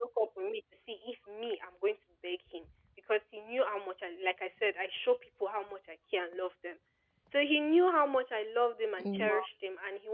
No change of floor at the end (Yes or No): Yes